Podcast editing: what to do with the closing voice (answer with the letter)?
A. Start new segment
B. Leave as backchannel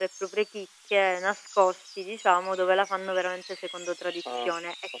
B